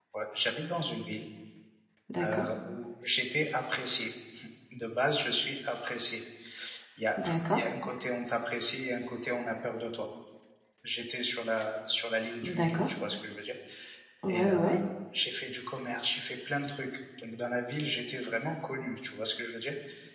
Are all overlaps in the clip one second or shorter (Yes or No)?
Yes